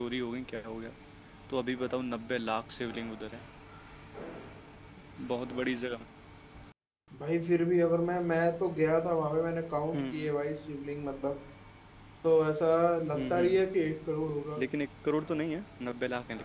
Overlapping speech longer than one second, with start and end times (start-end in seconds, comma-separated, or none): none